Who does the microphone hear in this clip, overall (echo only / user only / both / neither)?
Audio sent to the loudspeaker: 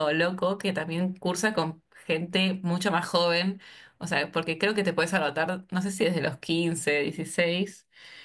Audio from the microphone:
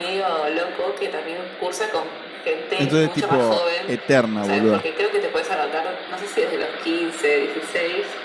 both